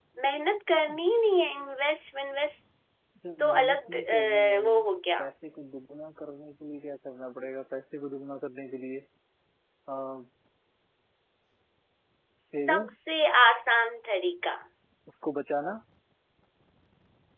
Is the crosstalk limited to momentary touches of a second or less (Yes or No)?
No